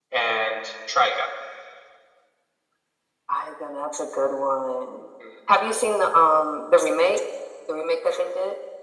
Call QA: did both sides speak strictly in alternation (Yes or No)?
Yes